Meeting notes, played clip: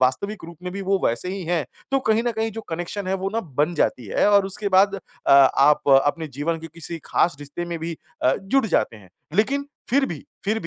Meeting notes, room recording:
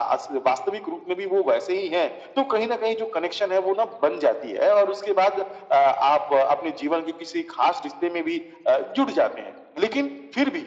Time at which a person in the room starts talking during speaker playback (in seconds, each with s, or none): none